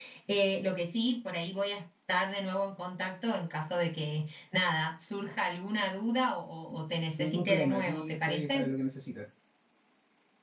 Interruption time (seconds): 7 s

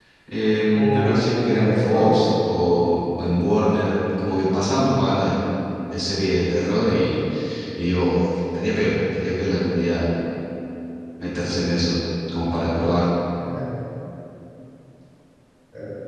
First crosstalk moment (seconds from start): 1 s

